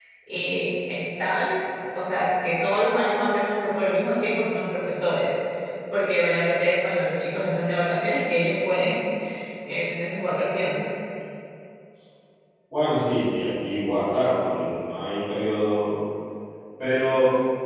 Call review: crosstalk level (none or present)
none